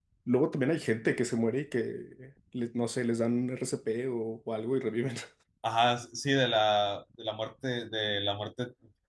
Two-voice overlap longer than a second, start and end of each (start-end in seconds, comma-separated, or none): none